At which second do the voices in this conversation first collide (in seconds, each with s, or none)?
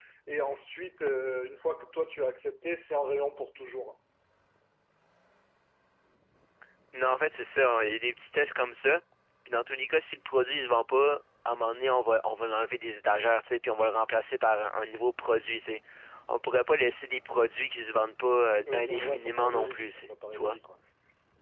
18.7 s